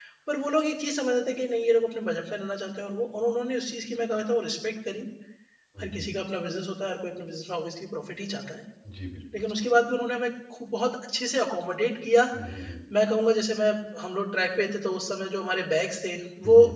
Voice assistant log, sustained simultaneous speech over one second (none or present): none